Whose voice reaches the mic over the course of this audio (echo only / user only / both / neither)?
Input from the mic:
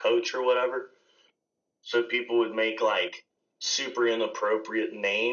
echo only